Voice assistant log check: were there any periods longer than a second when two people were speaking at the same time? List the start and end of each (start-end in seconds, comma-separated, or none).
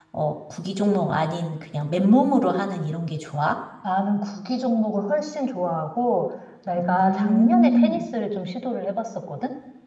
6.8-8.0